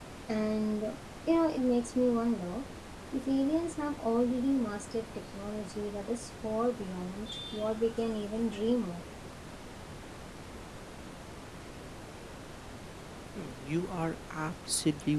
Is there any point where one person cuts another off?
No

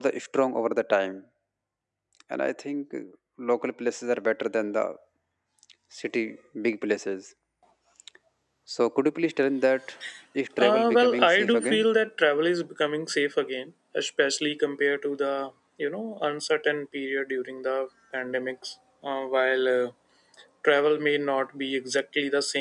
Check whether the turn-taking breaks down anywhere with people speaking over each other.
Yes, from 10.6 s

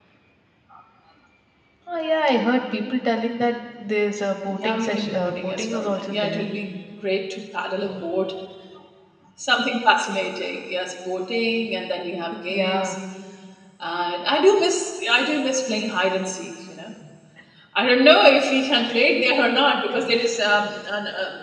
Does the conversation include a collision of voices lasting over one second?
Yes, from 4.5 s

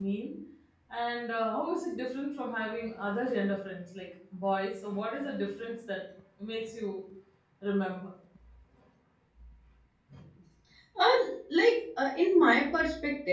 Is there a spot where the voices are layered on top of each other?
No

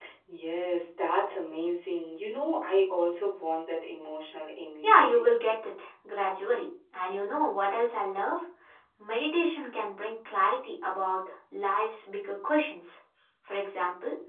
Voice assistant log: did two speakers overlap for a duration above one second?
No

